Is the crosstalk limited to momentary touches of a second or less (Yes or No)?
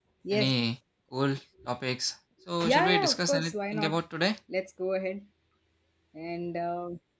No